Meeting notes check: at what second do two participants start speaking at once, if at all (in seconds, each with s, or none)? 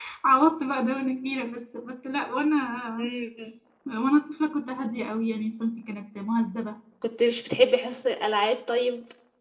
none